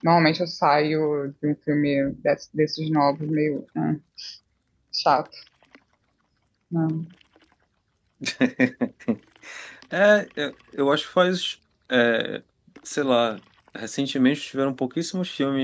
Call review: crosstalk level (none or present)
none